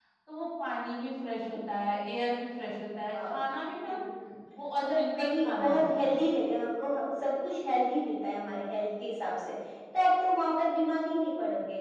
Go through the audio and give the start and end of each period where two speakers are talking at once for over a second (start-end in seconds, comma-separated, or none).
4.8-6.2